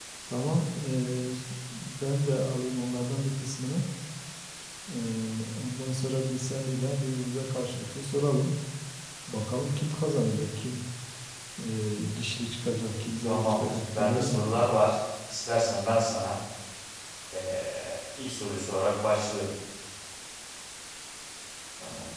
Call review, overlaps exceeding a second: present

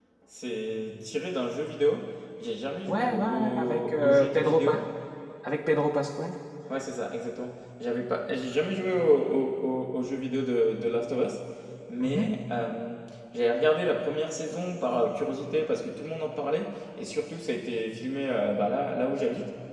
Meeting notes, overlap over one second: present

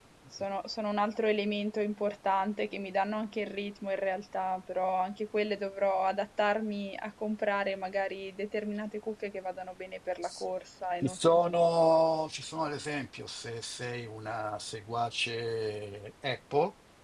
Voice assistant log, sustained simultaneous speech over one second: none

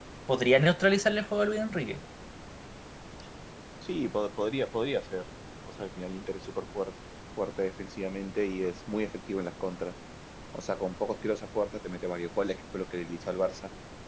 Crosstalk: none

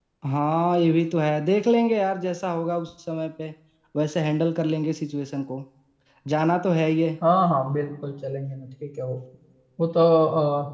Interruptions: none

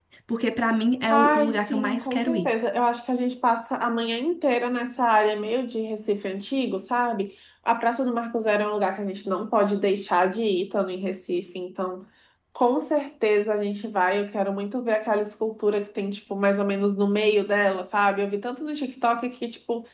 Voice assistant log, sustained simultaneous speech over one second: present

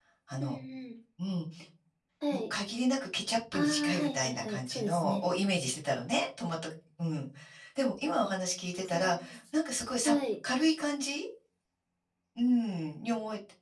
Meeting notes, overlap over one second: present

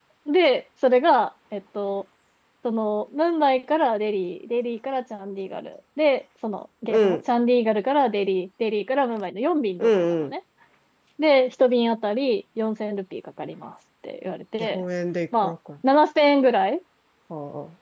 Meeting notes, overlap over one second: none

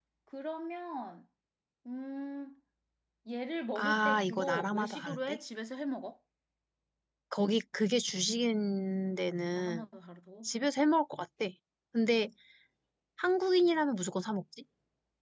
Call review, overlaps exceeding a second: present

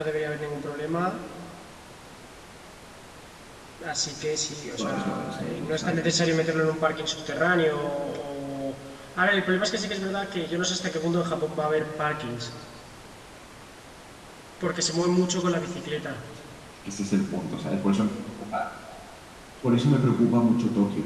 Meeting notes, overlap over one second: present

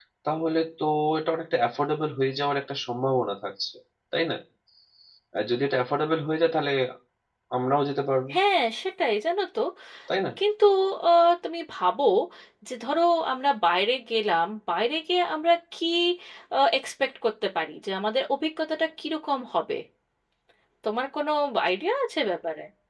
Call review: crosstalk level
none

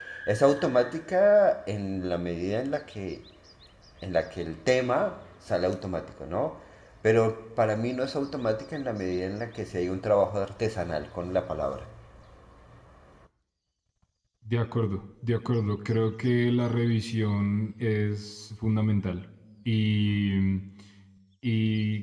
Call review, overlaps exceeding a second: none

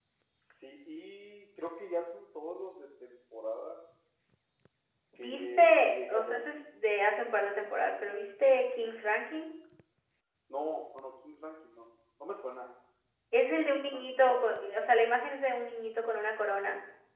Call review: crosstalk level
present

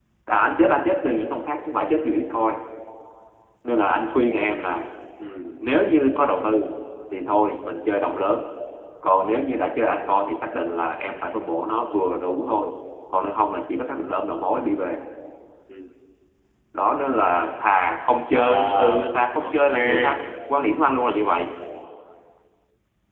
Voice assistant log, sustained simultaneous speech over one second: present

